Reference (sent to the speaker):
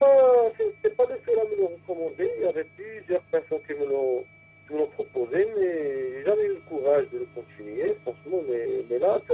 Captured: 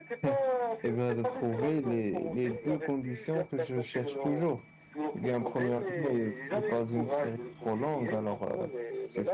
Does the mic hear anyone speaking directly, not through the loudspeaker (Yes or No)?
Yes